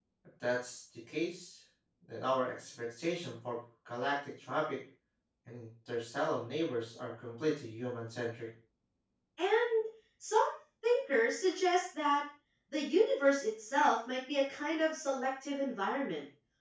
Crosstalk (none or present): none